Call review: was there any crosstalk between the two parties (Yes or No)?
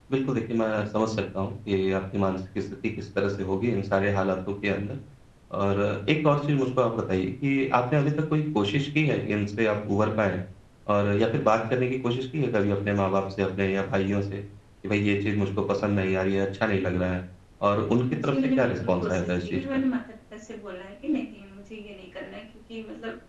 Yes